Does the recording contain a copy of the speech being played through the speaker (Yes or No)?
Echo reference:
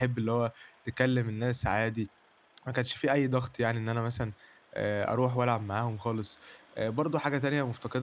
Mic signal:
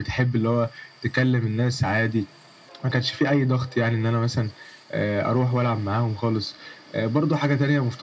Yes